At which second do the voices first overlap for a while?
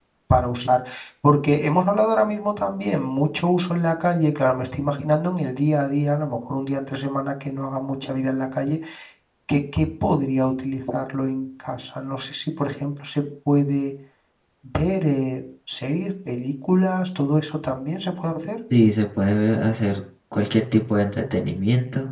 none

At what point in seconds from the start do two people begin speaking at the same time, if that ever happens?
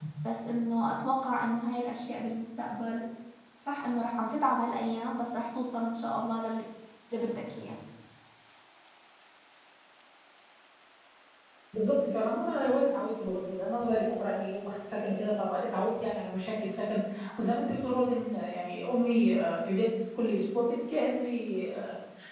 none

